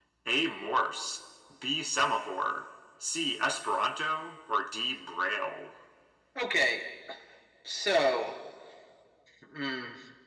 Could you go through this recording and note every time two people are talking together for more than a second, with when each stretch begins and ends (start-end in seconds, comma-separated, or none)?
none